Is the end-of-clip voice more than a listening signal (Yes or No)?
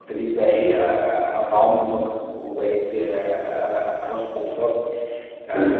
No